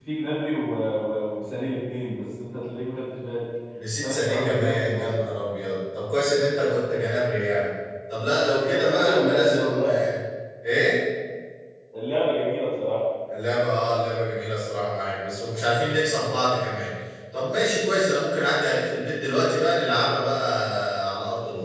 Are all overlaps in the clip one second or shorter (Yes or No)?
No